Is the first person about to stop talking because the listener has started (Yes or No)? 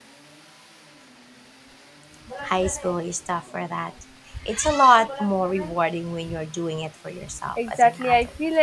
Yes